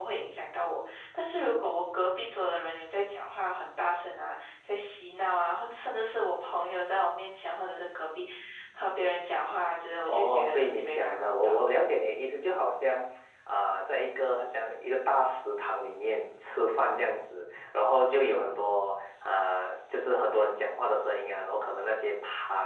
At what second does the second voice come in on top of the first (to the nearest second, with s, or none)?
10 s